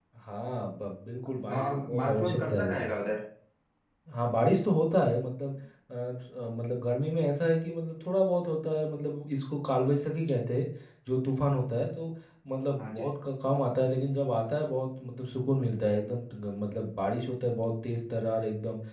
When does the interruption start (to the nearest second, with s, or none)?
2 s